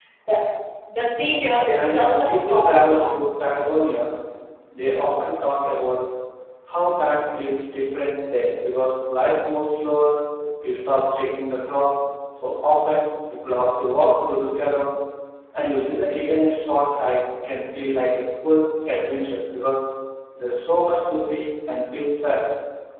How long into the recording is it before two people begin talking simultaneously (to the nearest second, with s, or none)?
2 s